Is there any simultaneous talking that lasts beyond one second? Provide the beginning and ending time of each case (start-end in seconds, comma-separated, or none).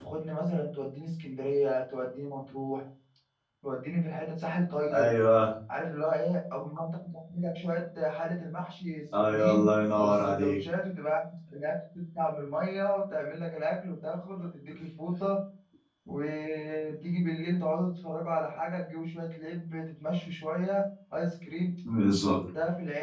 9.3-10.6